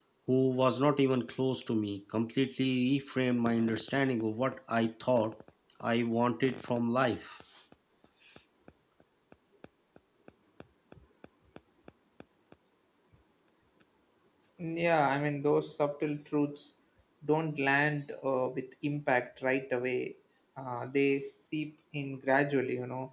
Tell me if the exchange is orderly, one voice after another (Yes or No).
Yes